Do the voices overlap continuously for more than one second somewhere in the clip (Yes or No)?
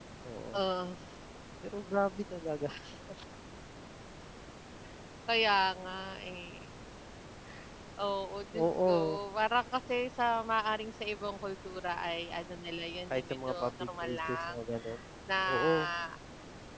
Yes